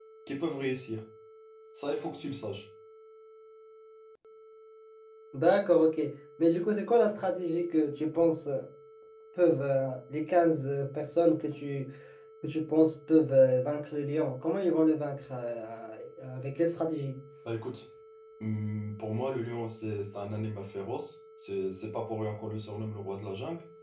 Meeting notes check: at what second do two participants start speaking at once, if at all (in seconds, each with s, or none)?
none